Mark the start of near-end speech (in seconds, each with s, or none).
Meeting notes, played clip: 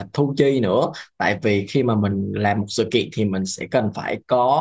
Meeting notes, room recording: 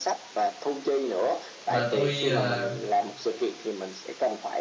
1.7 s